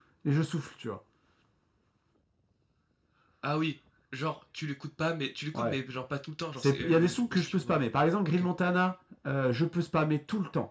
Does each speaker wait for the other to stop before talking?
No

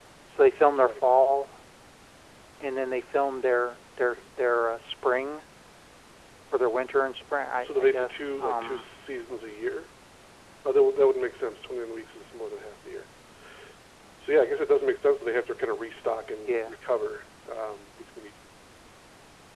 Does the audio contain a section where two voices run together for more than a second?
Yes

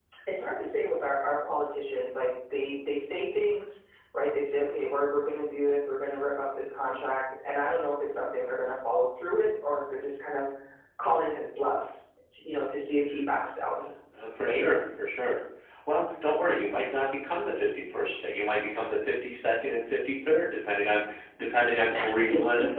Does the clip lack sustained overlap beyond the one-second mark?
Yes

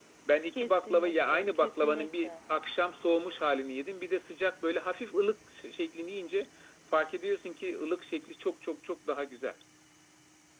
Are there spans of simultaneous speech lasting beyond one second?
Yes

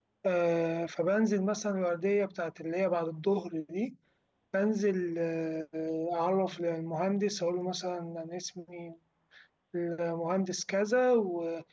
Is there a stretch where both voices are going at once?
No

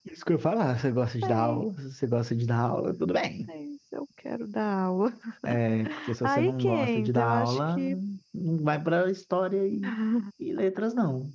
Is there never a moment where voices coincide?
No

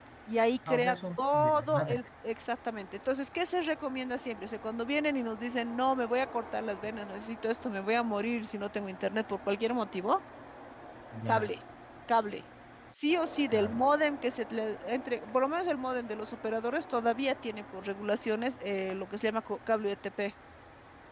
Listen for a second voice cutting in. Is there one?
Yes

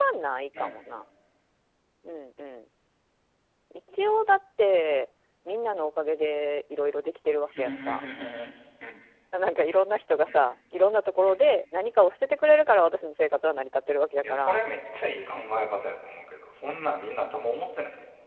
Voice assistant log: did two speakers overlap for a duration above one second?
No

